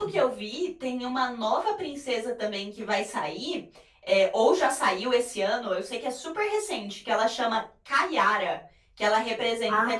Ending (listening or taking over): listening